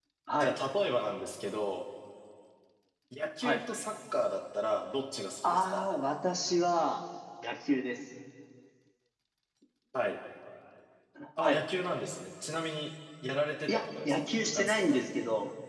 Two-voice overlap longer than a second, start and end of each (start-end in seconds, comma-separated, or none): 13.7-15.1